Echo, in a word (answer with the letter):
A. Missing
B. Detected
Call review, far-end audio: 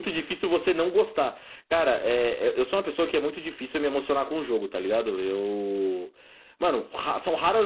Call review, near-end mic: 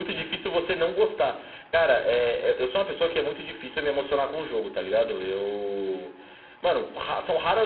B